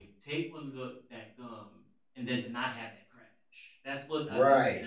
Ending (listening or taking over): taking over